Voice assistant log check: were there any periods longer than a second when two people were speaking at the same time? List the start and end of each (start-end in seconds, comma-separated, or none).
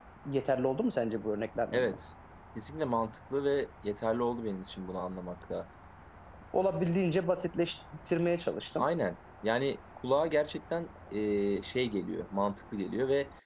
none